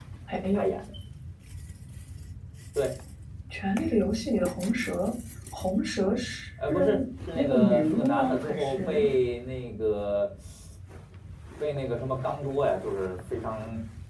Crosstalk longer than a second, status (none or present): present